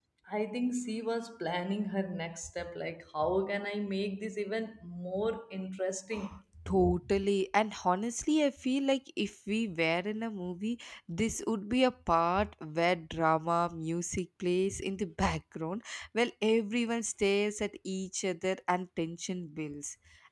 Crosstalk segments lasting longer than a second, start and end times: none

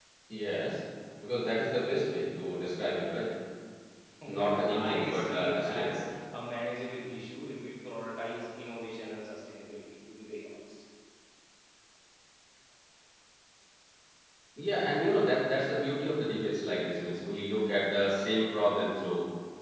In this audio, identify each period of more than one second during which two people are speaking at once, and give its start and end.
4.4-6.0

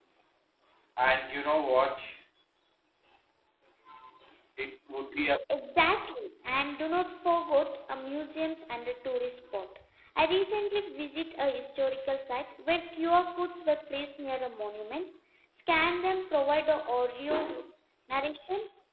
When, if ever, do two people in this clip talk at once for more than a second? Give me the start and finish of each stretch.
none

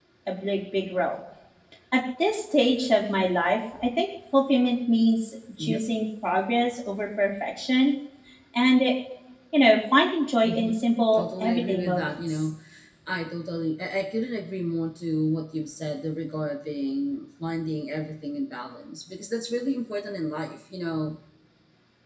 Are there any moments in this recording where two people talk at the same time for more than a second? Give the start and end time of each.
11.1-12.4

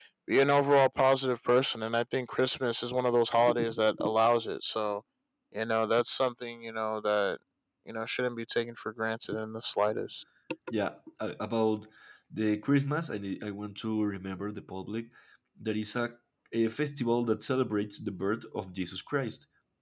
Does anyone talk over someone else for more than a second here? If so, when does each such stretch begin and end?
none

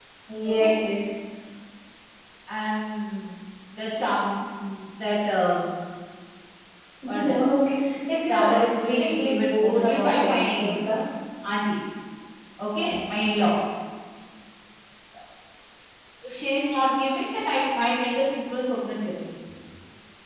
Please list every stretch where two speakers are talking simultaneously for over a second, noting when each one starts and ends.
8.3-10.9

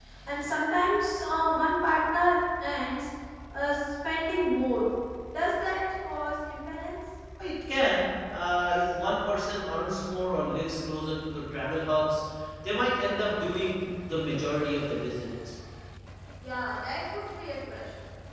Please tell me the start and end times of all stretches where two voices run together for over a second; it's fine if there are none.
none

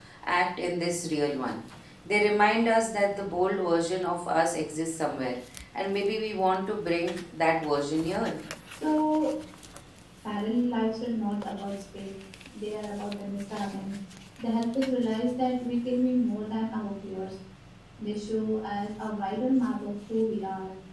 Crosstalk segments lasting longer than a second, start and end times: none

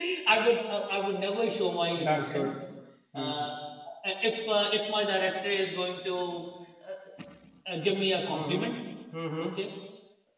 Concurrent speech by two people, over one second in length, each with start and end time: none

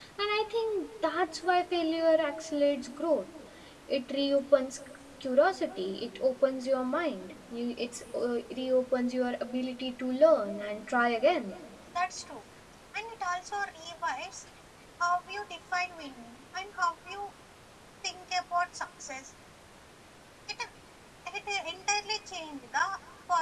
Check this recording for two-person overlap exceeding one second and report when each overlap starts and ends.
none

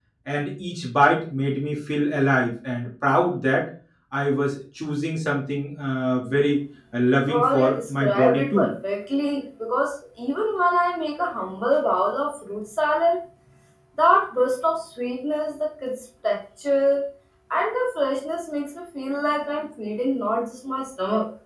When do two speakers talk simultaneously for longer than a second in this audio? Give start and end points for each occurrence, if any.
7.3-8.7

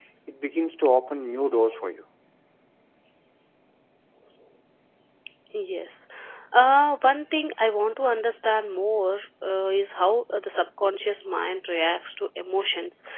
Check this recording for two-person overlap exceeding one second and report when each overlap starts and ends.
none

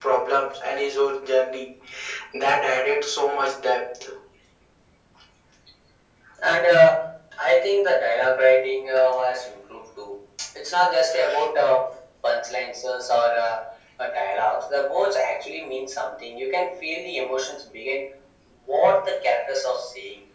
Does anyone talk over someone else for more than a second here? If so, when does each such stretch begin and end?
none

